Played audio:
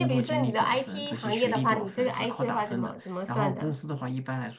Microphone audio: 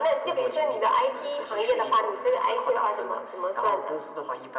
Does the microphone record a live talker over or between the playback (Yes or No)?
No